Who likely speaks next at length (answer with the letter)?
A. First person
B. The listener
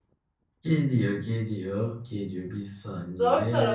B